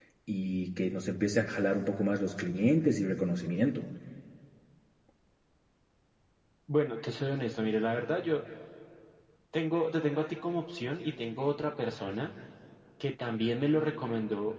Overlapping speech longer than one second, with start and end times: none

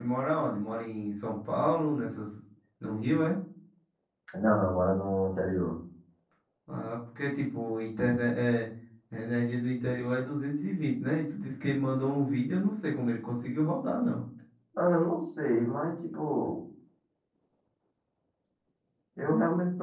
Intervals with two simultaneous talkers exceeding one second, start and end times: none

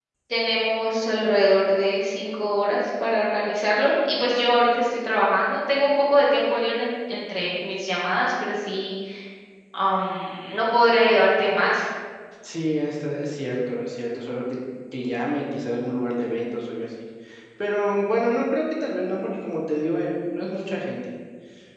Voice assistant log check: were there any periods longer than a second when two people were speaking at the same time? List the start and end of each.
none

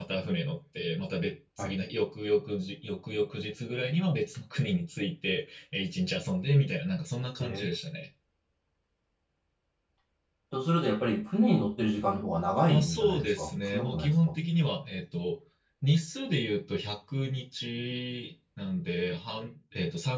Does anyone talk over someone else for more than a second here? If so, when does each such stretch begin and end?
12.7-14.3

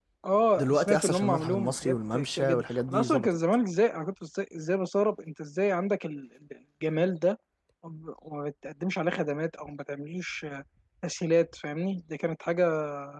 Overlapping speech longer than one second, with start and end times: 0.6-3.4

